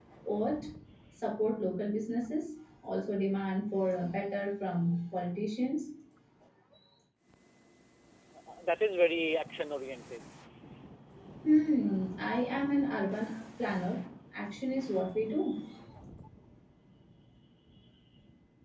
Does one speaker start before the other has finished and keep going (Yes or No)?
No